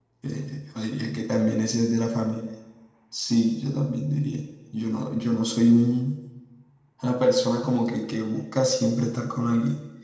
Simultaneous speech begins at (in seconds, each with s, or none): none